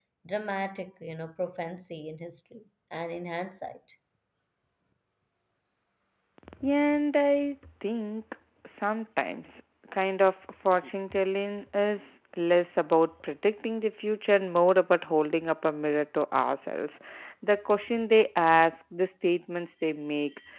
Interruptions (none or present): none